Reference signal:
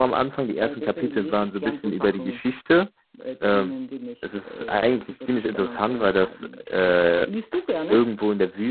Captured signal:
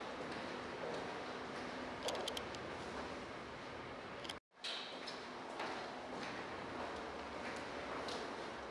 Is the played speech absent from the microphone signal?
Yes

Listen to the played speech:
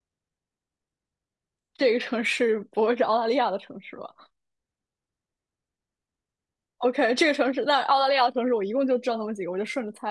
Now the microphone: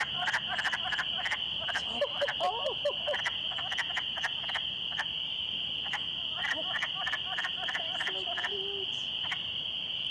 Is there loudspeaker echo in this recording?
No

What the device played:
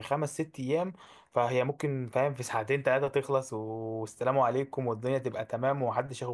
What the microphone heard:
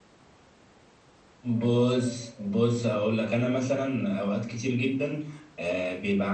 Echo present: No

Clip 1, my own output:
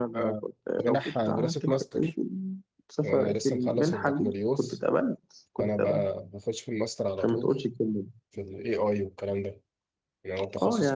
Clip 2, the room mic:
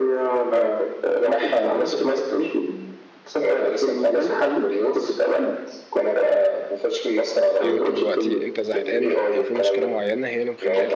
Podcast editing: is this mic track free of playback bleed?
No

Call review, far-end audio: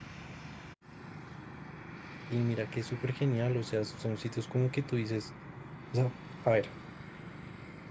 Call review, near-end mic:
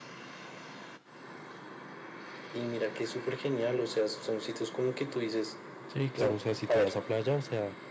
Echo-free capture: No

